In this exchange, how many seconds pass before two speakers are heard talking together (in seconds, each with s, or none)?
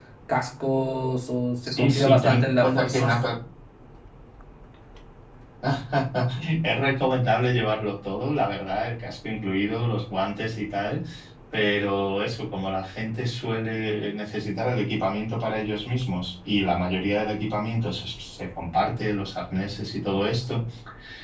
1.7 s